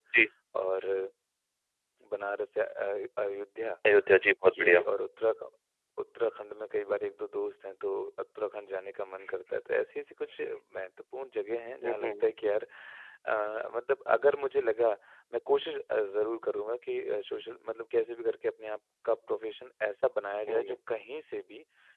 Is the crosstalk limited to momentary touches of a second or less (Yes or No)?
Yes